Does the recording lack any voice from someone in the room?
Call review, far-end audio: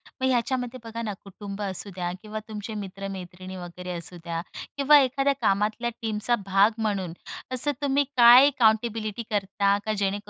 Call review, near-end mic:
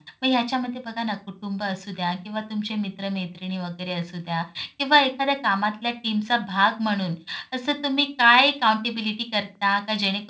Yes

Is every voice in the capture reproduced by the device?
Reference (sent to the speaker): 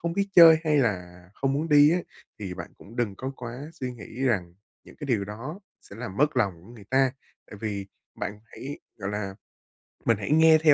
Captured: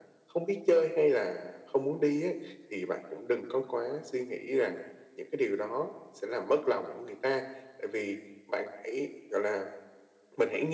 Yes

